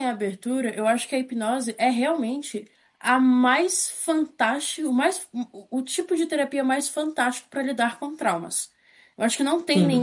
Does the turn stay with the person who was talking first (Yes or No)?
Yes